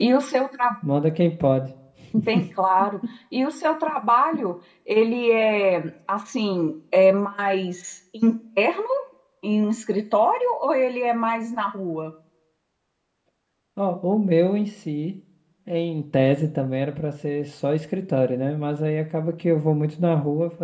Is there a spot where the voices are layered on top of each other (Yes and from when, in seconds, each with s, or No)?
No